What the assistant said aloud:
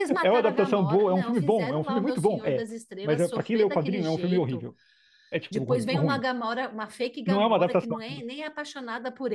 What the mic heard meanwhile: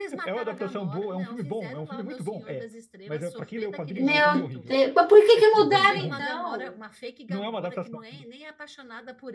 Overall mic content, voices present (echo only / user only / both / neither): both